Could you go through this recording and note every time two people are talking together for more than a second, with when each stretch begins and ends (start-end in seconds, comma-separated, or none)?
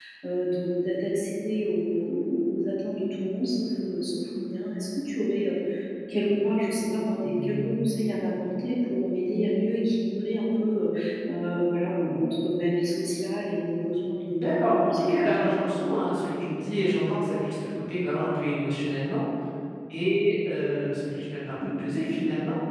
14.3-15.5